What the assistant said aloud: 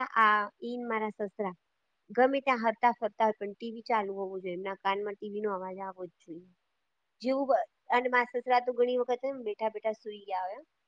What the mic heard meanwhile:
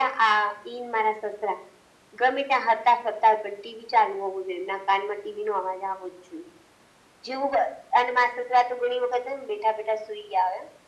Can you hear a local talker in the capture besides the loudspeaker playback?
No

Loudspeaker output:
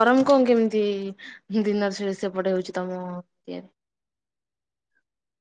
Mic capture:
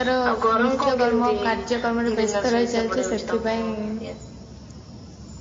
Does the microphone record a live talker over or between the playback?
Yes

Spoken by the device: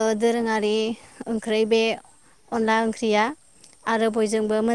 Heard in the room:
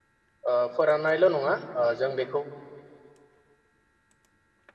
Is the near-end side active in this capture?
Yes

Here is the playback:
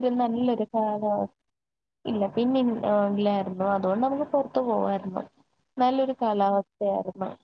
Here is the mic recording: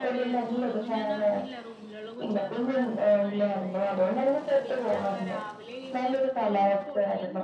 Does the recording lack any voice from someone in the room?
No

